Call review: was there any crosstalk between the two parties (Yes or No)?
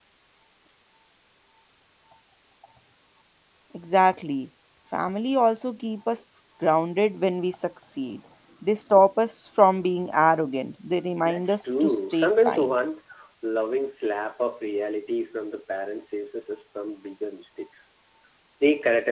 Yes